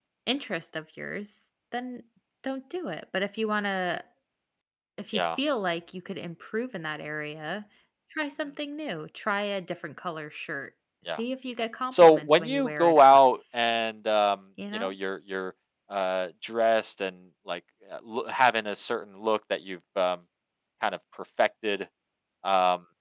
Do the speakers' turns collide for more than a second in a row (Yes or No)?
Yes